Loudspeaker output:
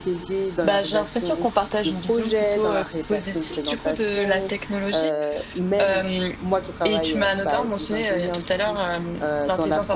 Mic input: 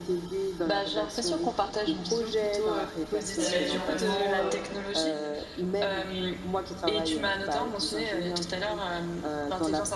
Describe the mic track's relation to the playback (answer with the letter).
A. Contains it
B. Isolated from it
A